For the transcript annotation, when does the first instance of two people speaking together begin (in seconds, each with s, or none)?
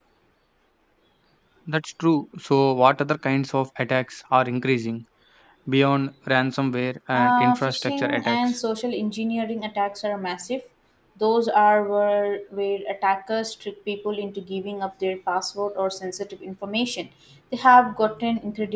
7.1 s